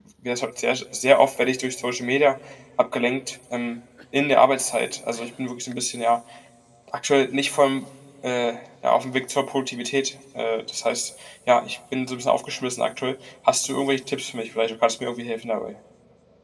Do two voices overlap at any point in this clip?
No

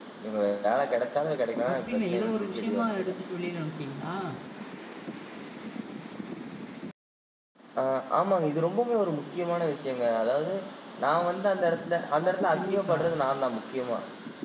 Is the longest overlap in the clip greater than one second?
Yes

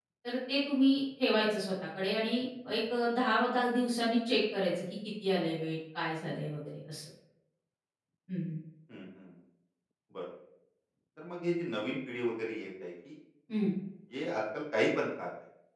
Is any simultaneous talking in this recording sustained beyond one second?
No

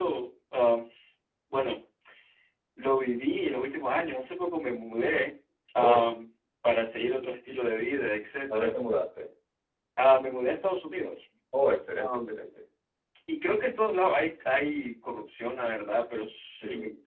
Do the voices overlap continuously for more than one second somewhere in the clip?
No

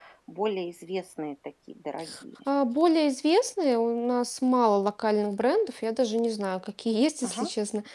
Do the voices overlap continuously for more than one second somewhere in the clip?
No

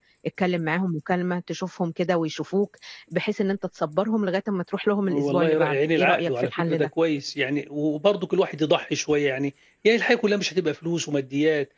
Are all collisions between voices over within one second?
No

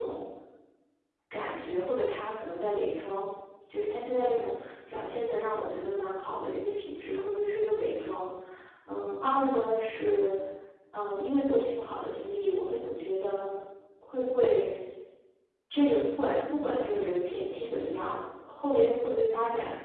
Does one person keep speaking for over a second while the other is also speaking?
No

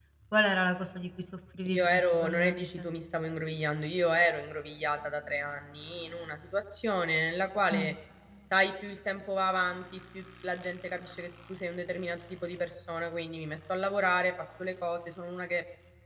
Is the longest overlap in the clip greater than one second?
Yes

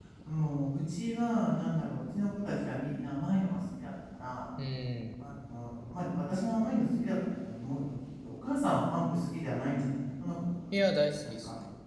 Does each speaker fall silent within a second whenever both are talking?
Yes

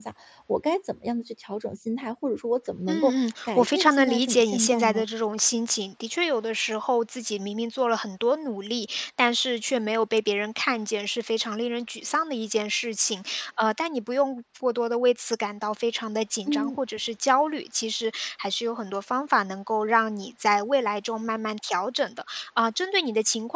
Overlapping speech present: Yes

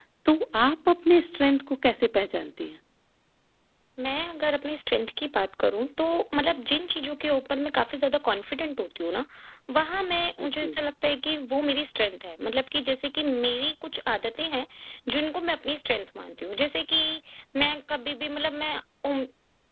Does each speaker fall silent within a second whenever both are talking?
Yes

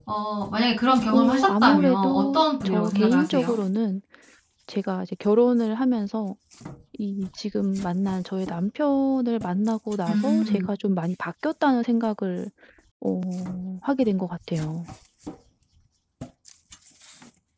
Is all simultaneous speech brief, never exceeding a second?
No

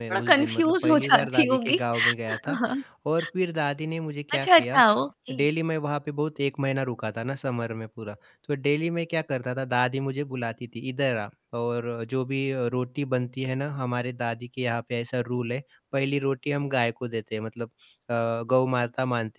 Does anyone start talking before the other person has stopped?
Yes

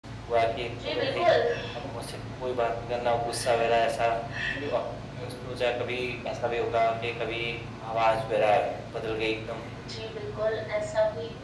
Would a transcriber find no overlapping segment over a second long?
Yes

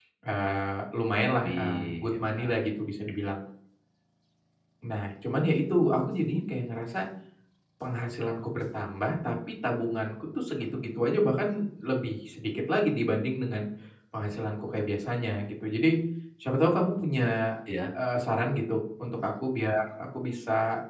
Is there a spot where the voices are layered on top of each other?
Yes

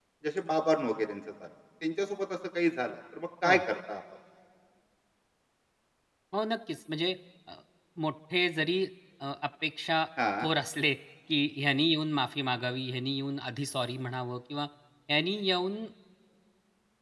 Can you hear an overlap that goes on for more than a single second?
No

